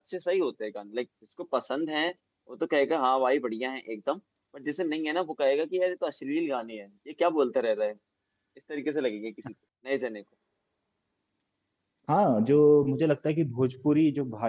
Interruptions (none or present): none